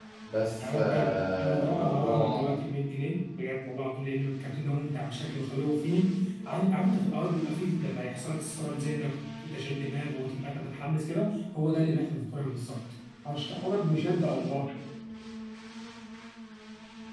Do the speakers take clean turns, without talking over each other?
No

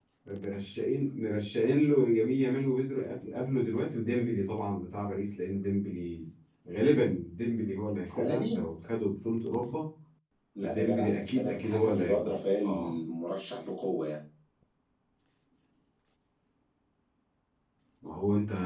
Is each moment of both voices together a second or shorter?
No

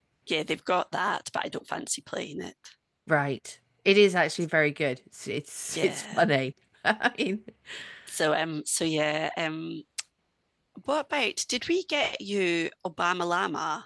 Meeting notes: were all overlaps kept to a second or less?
Yes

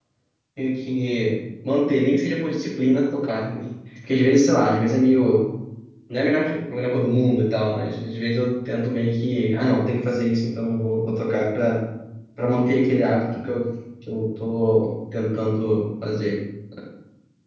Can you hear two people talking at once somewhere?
No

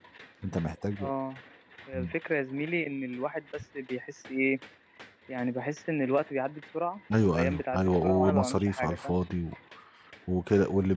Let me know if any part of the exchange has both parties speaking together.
Yes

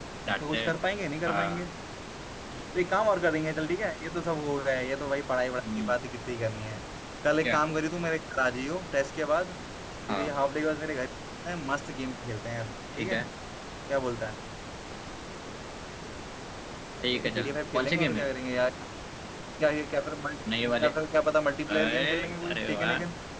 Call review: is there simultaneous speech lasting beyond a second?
Yes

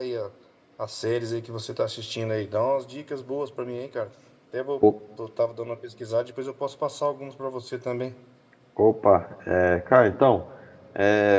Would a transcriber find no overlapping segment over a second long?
Yes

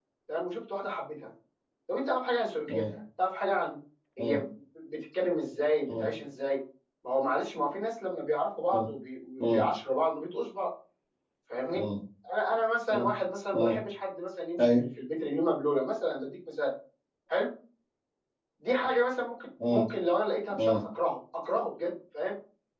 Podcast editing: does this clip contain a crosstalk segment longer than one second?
No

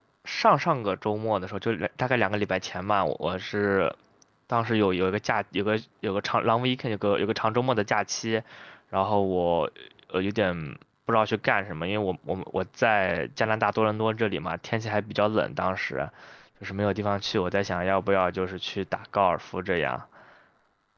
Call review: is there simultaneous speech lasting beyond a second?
No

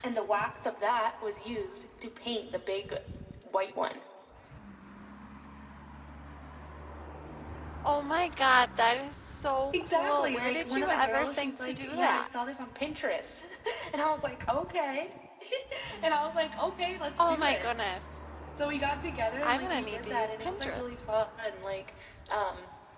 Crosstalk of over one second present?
Yes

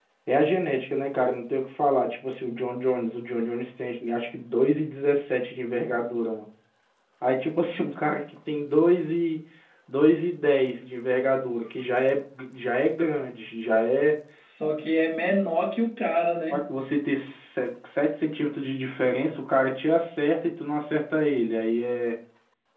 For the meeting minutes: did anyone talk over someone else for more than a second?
No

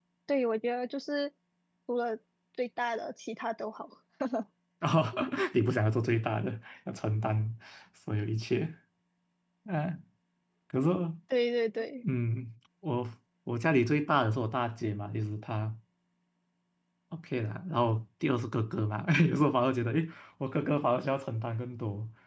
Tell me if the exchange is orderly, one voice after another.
Yes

